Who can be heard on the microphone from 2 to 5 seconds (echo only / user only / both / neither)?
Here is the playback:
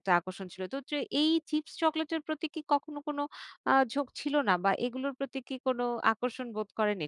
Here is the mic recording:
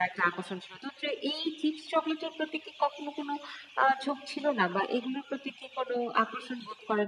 echo only